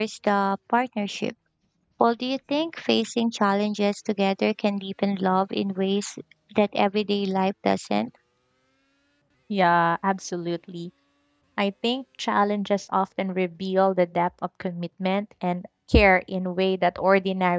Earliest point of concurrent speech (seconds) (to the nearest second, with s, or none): none